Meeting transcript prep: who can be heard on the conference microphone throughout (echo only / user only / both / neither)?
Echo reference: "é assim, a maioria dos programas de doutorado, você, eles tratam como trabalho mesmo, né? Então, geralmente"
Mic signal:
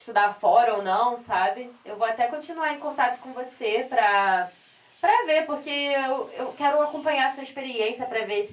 user only